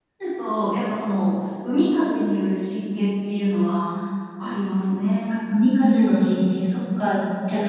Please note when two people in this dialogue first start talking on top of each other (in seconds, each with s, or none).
none